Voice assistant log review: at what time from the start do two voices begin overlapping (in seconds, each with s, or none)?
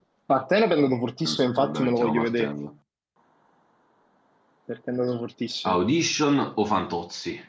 1.3 s